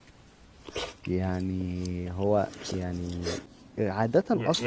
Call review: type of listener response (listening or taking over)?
taking over